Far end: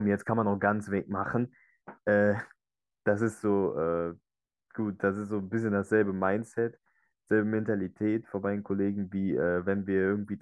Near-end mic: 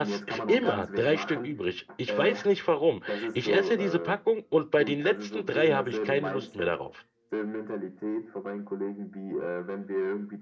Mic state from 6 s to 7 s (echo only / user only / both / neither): both